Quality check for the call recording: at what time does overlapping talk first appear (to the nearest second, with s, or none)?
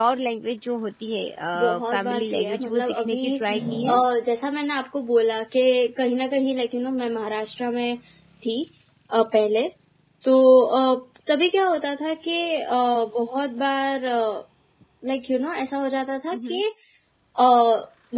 2 s